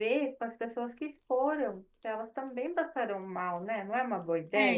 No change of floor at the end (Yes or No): No